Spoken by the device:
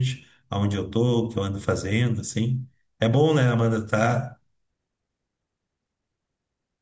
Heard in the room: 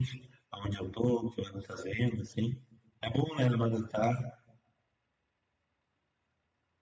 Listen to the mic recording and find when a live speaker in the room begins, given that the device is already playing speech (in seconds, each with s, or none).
none